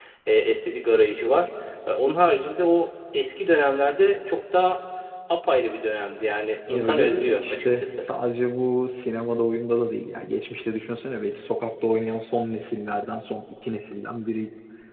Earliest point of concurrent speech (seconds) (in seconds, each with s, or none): 6.7 s